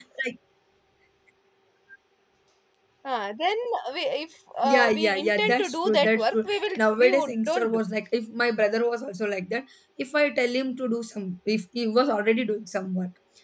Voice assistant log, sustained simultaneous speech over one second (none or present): present